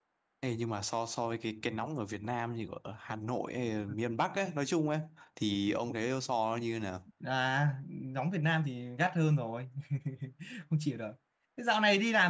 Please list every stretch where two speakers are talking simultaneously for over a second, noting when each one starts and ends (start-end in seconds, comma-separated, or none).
none